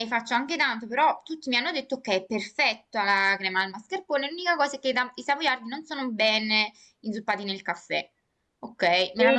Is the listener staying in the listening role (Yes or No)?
No